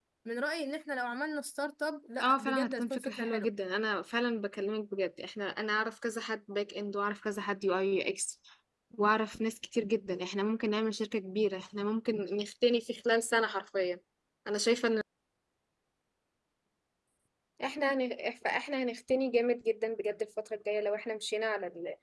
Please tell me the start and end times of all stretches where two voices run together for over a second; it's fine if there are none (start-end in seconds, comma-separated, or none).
2.2-3.5